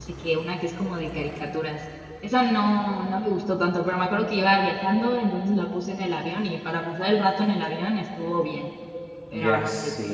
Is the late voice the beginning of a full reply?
Yes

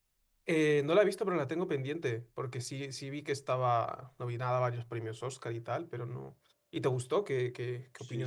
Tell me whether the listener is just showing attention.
No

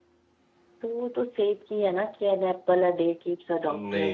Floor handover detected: Yes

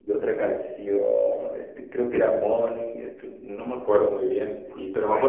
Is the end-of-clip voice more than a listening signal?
No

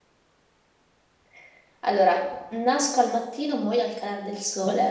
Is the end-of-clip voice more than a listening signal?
Yes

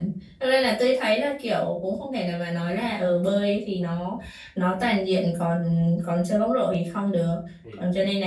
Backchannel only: Yes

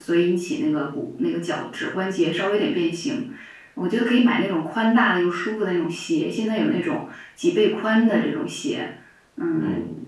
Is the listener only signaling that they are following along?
Yes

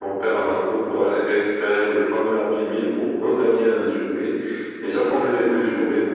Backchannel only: Yes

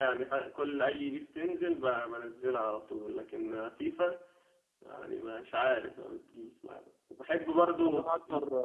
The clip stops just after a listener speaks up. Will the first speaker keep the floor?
No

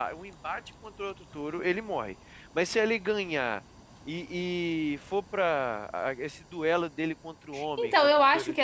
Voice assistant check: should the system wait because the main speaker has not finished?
No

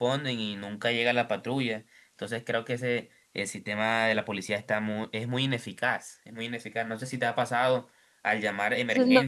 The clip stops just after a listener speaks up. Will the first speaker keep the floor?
No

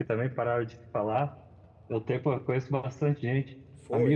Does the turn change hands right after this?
No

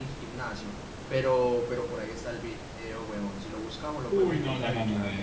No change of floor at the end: No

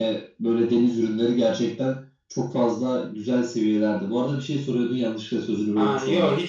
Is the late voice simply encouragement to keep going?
No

